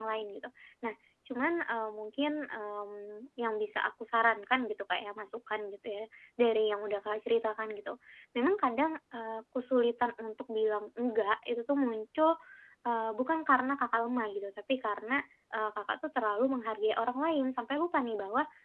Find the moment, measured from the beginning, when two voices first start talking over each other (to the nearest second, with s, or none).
none